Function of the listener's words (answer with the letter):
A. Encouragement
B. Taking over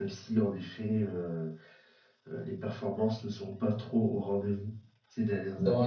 B